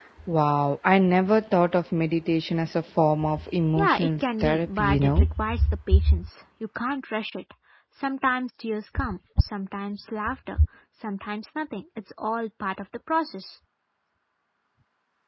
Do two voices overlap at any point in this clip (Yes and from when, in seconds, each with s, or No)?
Yes, from 3.8 s